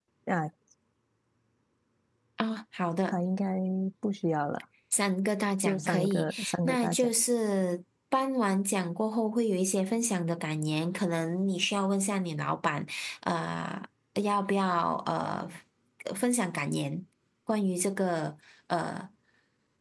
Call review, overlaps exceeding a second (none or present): present